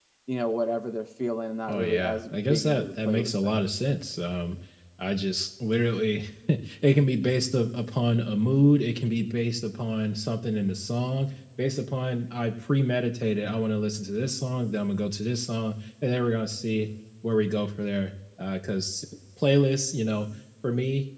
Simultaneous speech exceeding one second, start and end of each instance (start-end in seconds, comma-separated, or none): 1.7-3.6